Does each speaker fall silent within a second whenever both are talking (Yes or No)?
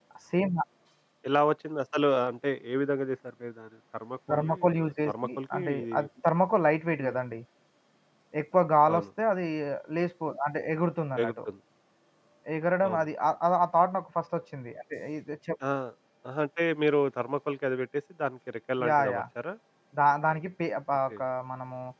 No